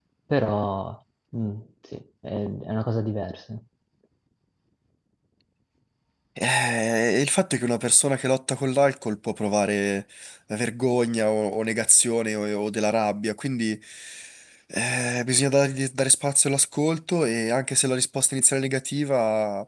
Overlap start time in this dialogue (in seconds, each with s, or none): none